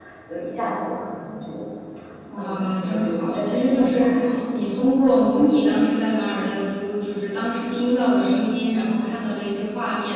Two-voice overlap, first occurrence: 2.4 s

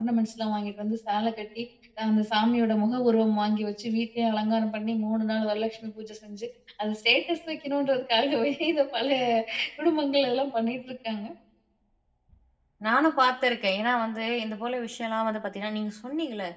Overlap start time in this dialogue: none

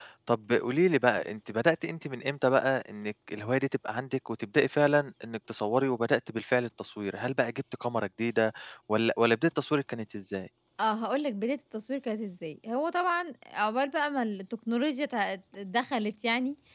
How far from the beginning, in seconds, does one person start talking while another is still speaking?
none

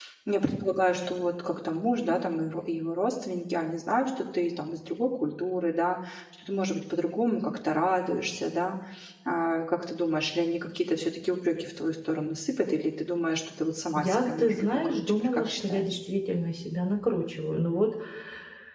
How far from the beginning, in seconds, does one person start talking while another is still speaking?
14.0 s

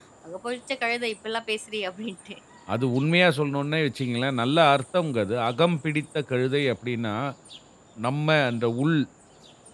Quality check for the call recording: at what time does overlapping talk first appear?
none

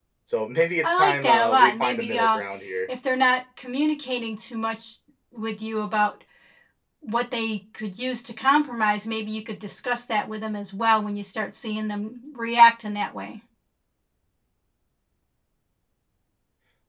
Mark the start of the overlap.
0.8 s

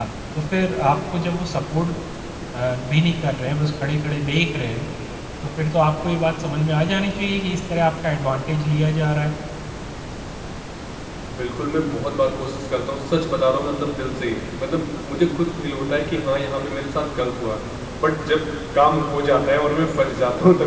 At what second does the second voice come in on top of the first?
none

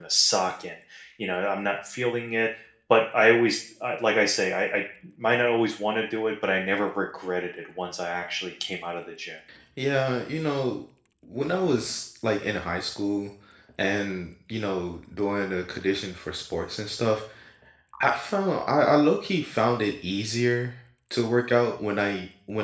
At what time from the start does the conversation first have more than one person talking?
none

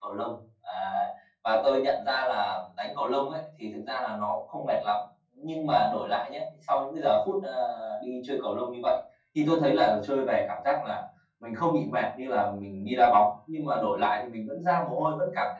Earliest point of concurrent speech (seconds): none

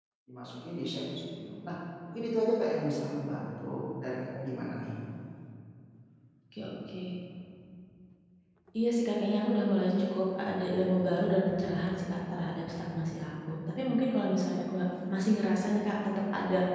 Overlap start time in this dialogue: none

